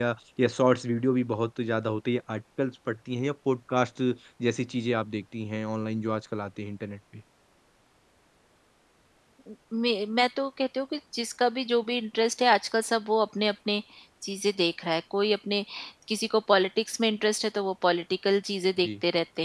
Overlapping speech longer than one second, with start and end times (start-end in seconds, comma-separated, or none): none